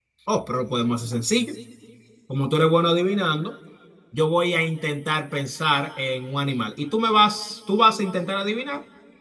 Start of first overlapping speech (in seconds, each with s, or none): none